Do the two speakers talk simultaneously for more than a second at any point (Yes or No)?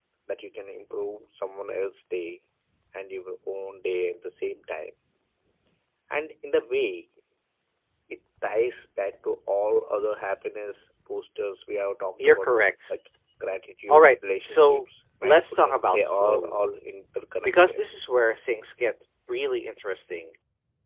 Yes